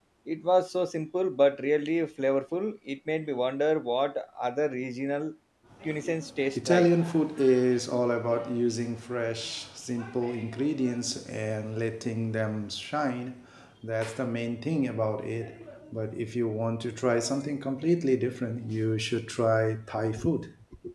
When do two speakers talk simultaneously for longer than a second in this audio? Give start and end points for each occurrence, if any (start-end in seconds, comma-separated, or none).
none